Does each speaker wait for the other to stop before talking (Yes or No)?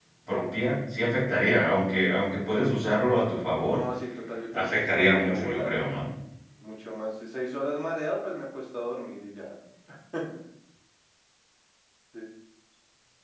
No